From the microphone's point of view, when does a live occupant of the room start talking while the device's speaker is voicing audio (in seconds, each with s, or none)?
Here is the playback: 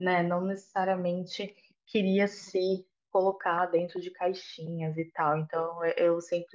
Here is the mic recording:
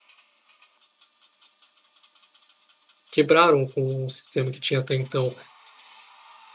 3.1 s